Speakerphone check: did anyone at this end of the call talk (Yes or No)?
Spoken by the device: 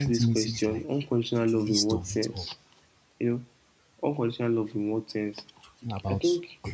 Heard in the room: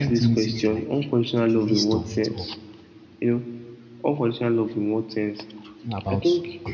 No